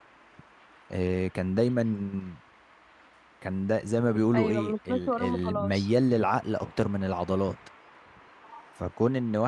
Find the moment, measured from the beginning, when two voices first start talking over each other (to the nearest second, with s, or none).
4 s